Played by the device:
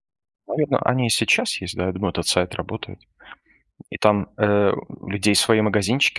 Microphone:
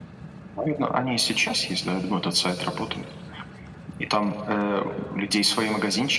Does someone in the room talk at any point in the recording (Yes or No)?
No